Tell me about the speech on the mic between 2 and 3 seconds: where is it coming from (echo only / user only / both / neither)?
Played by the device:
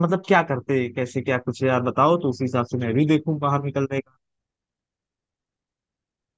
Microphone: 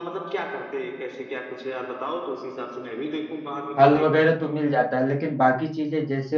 echo only